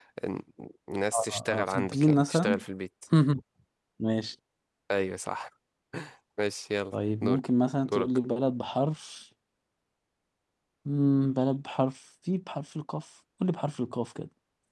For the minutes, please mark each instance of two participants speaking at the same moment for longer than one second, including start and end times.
1.1-2.6

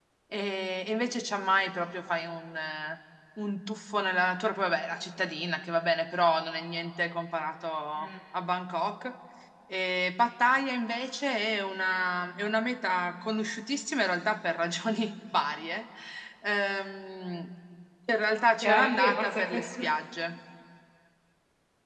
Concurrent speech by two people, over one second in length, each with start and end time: 18.4-19.7

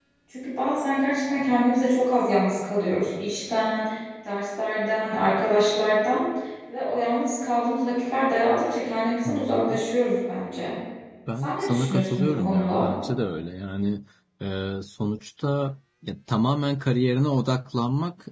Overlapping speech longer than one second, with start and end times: 11.4-12.9

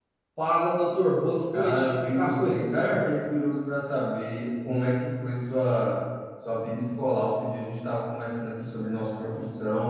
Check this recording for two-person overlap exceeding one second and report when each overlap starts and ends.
1.5-3.0

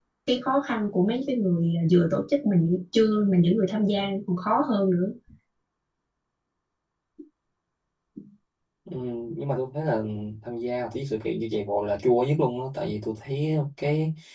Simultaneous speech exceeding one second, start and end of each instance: none

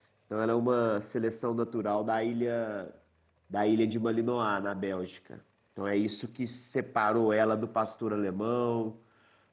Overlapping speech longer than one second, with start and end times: none

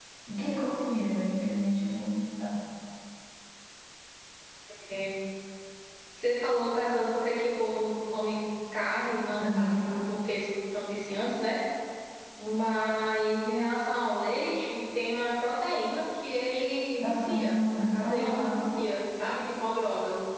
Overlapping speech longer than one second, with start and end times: 17.0-18.6

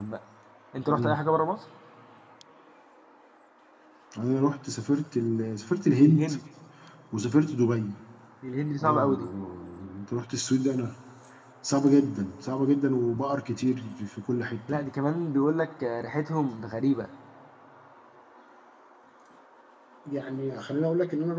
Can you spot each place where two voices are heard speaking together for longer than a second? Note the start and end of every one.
none

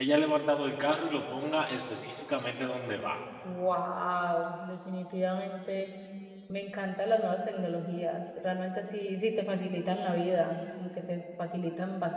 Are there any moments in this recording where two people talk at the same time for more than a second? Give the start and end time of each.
none

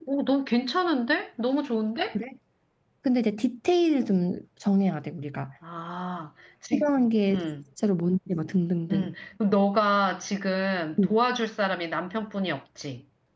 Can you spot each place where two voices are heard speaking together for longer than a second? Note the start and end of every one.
none

